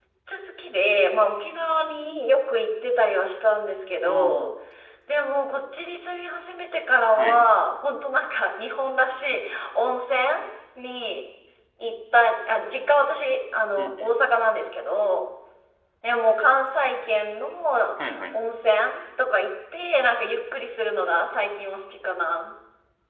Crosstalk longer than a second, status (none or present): none